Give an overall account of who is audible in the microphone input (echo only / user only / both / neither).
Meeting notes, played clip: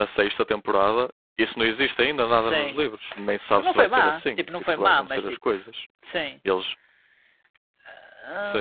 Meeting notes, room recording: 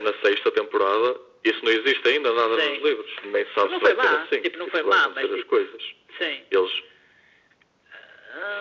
echo only